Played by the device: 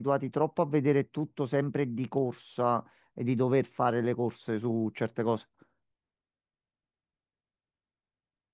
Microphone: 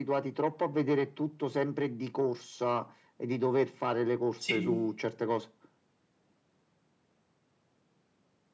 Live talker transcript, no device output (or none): Sì,